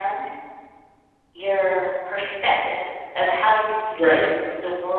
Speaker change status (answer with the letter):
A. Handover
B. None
B